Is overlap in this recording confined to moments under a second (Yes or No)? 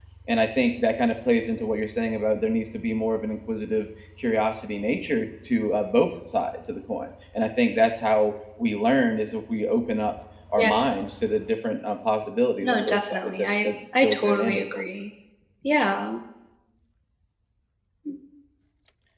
No